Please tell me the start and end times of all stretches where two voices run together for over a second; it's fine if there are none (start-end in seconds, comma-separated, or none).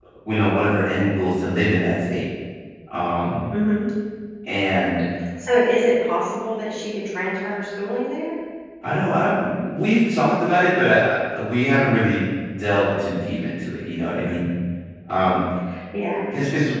none